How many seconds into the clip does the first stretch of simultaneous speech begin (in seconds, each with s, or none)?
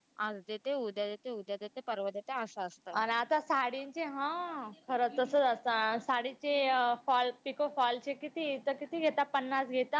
none